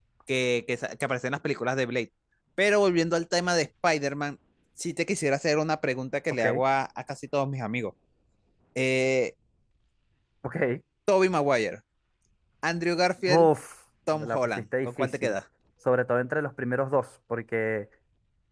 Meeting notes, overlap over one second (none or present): present